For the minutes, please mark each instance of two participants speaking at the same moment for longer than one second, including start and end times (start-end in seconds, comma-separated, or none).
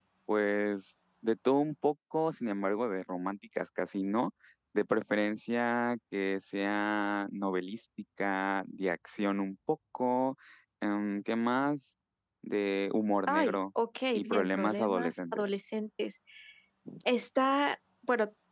14.1-15.4